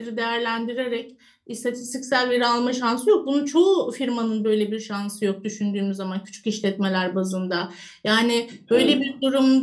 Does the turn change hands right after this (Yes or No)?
No